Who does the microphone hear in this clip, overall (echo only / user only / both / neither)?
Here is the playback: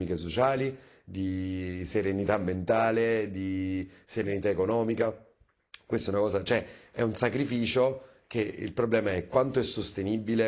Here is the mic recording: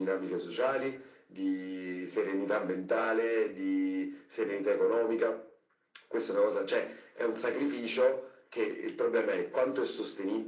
echo only